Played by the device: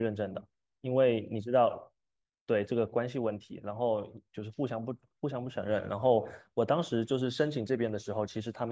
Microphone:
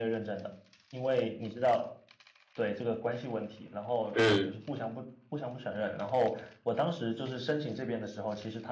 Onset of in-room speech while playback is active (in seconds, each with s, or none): 4.1 s